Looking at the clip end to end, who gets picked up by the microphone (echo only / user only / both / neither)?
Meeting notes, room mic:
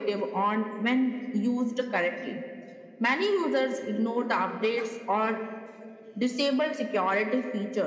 echo only